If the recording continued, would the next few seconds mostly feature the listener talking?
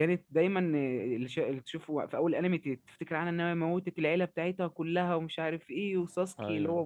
No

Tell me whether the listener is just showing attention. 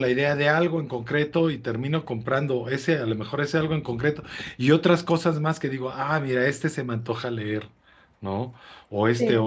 Yes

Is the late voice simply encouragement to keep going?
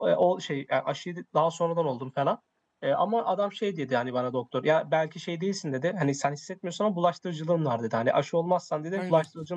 Yes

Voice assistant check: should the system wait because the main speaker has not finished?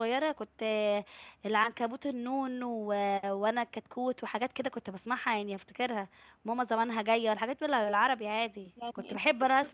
No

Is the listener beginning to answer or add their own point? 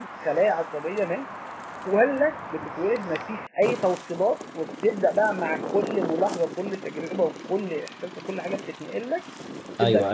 Yes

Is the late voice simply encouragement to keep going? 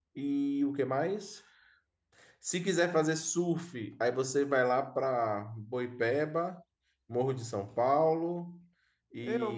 No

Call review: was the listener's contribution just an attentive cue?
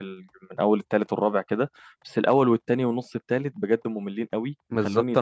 No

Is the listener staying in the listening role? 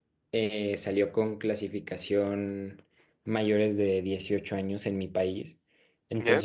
Yes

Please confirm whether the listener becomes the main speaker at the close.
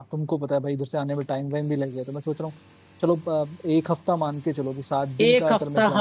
Yes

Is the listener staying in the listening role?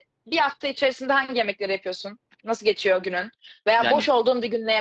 Yes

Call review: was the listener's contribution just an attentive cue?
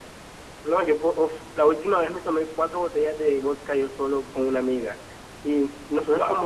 Yes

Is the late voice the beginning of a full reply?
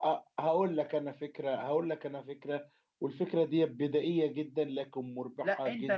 Yes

